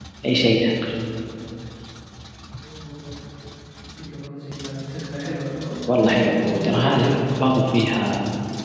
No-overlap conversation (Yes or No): No